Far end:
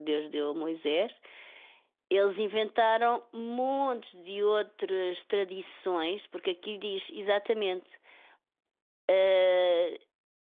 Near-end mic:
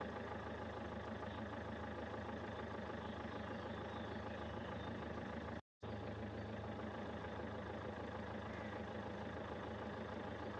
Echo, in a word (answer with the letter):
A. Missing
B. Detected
A